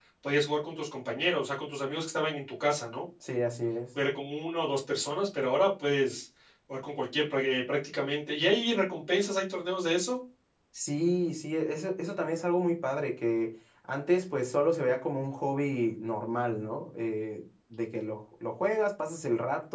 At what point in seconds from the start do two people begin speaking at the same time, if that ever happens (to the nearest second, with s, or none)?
none